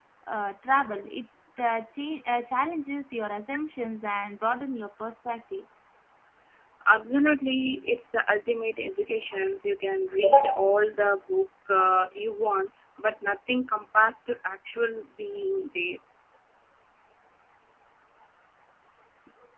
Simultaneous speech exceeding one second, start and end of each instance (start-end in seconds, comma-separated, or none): none